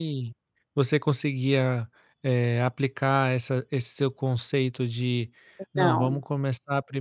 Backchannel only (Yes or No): Yes